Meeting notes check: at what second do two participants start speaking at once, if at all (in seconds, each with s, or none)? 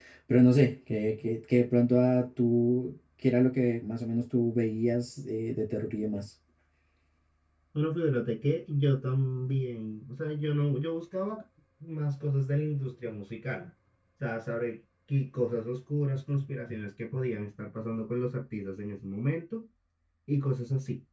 none